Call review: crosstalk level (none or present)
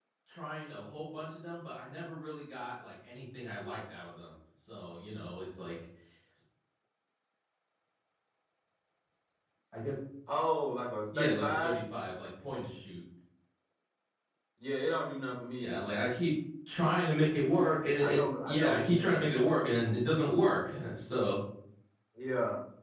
present